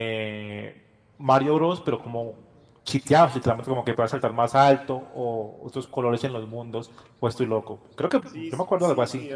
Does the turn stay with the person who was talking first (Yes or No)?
No